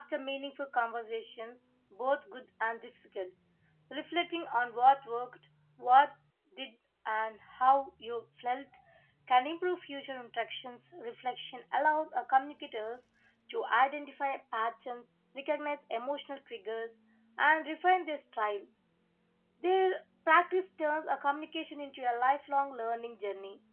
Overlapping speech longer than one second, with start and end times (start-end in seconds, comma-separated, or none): none